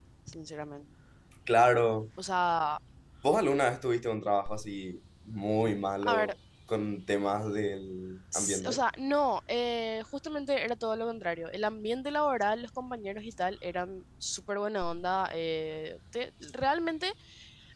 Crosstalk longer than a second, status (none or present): none